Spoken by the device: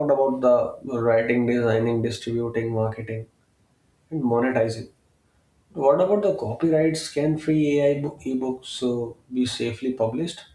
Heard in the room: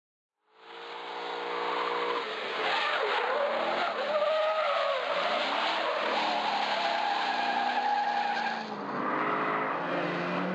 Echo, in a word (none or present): none